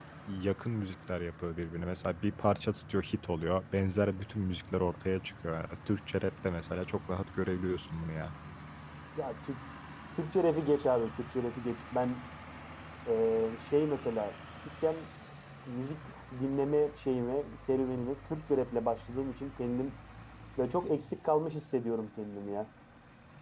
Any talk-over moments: No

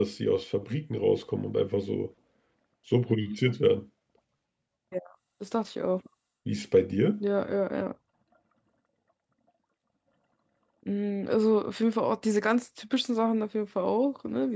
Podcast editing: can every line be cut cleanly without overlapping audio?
Yes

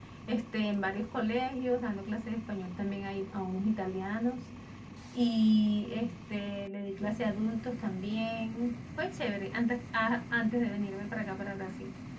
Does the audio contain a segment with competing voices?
No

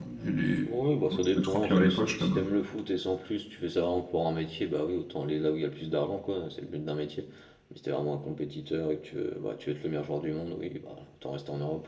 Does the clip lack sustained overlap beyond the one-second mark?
No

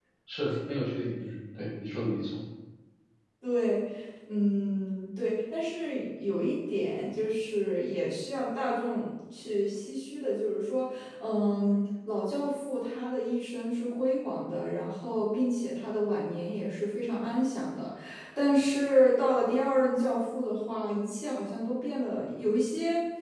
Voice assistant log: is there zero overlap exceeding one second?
Yes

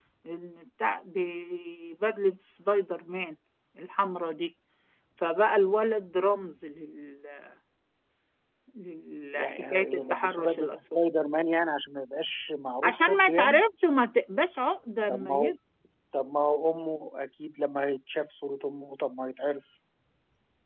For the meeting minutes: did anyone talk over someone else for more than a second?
Yes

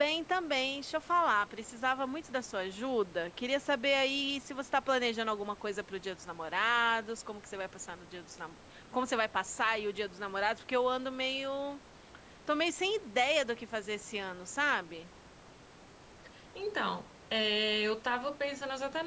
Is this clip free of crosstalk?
Yes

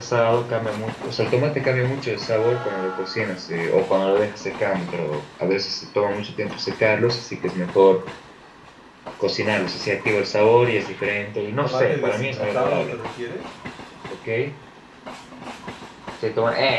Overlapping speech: Yes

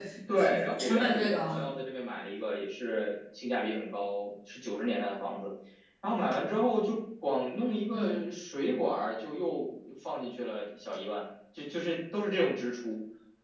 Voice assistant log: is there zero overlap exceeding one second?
No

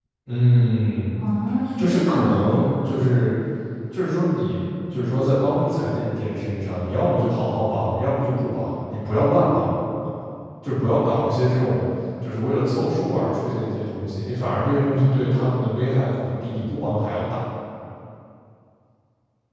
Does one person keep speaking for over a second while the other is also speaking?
Yes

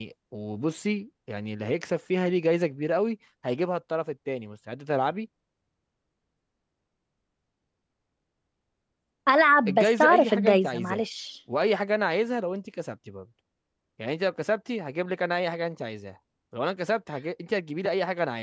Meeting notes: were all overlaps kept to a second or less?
No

